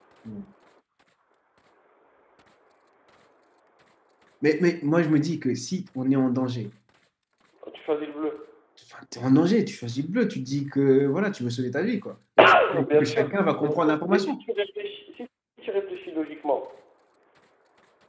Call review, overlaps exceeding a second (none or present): present